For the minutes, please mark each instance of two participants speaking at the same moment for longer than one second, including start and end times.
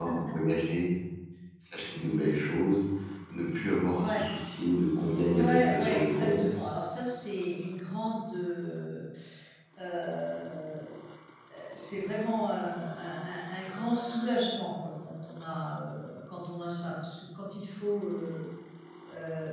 5.4-6.6

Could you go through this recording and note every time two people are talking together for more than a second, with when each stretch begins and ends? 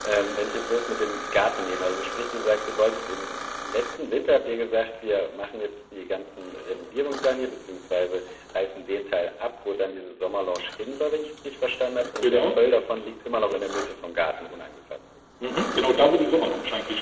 none

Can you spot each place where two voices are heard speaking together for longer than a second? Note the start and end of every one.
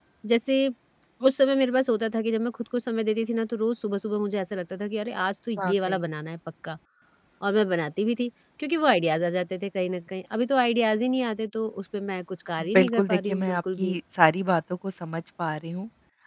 12.7-14.0

